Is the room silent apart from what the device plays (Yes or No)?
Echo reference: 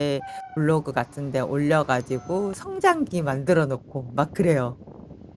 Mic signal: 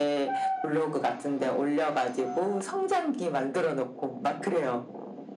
Yes